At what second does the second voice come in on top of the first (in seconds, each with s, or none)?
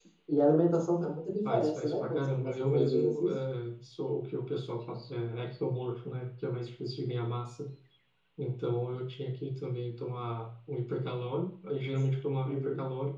1.5 s